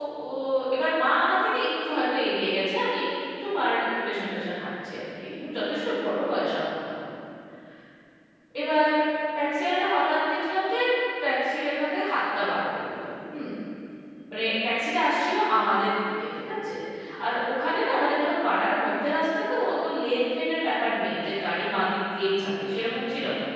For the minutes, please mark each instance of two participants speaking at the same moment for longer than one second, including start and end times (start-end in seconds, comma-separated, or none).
none